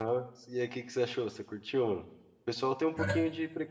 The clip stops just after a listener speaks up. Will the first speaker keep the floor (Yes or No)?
Yes